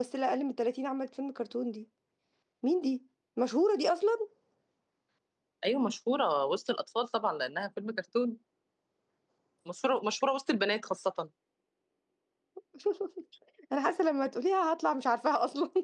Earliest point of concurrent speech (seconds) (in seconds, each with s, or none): none